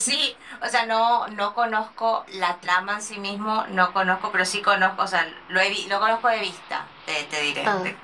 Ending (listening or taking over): taking over